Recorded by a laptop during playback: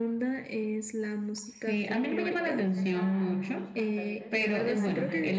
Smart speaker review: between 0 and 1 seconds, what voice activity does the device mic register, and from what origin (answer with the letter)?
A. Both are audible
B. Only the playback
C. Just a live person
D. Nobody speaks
B